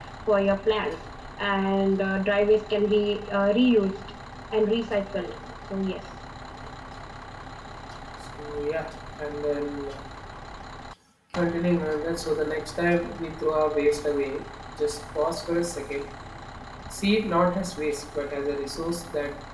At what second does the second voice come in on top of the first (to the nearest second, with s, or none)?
none